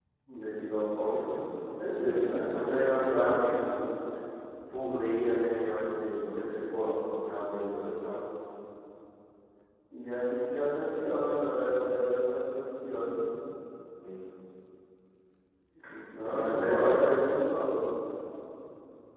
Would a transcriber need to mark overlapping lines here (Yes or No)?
Yes